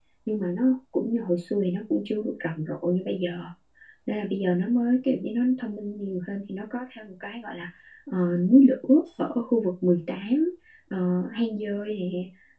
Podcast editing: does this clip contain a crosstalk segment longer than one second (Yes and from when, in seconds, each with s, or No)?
No